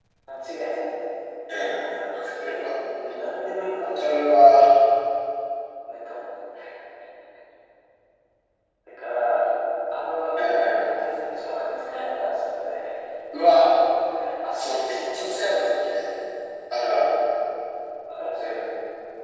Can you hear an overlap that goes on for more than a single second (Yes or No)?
Yes